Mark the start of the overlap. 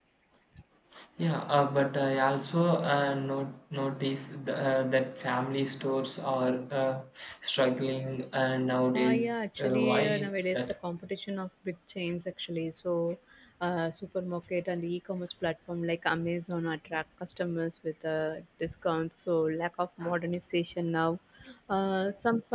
9 s

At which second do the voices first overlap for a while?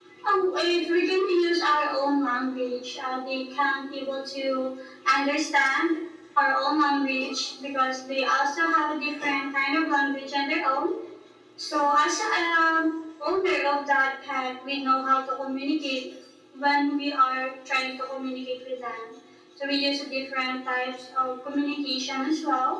none

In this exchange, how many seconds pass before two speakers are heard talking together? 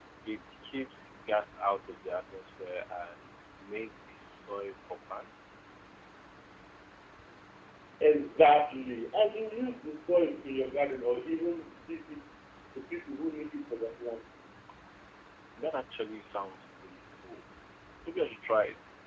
none

